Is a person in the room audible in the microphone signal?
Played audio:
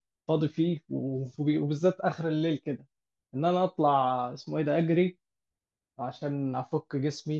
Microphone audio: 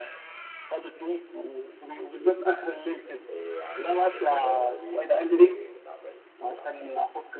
Yes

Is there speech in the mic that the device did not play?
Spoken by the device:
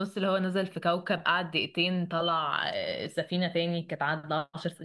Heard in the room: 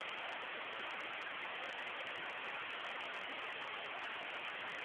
No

